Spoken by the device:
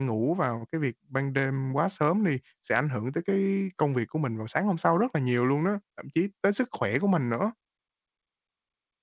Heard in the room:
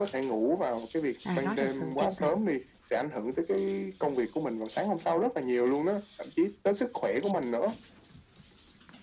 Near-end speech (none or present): present